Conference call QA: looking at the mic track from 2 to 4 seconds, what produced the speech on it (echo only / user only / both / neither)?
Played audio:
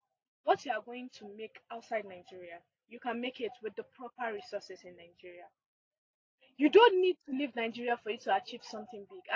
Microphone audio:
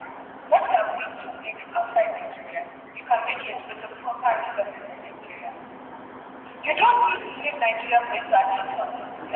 echo only